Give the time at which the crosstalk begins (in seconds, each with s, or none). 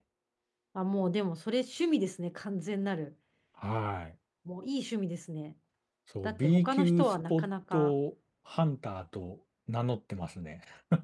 6.2 s